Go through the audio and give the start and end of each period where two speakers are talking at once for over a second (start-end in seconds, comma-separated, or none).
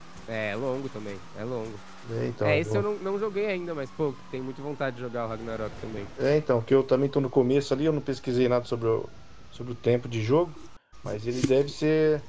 none